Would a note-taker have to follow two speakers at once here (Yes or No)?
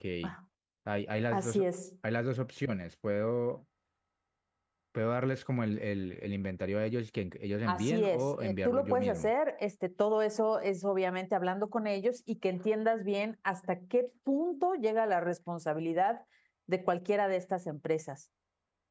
Yes